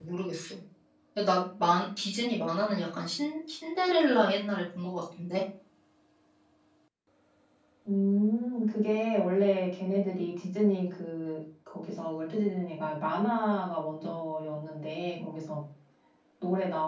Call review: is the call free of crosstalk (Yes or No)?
Yes